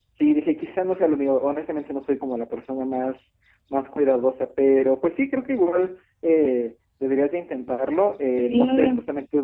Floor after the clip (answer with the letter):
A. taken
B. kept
B